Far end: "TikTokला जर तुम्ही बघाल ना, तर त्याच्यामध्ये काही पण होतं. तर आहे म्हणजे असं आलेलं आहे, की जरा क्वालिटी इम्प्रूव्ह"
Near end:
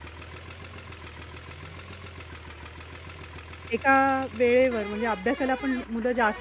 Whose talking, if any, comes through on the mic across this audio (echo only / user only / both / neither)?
user only